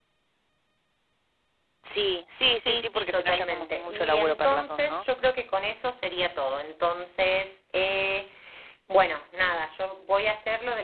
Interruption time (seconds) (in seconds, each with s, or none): 2.6 s